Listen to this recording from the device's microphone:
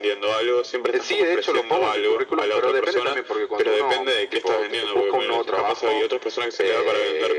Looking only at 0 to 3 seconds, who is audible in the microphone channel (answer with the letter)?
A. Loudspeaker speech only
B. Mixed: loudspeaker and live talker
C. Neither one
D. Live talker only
A